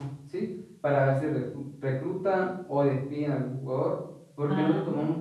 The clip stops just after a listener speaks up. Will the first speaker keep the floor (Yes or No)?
Yes